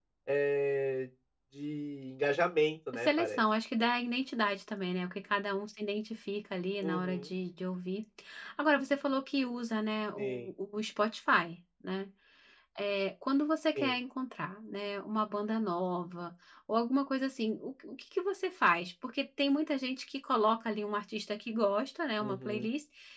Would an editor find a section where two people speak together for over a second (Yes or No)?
No